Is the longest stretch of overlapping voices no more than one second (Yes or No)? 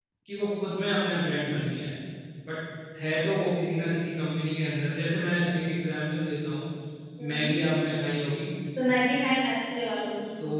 Yes